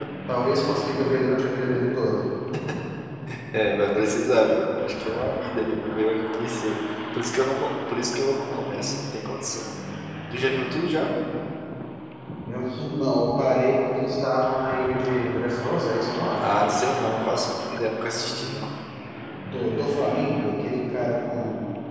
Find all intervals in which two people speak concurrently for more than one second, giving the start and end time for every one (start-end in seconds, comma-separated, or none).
none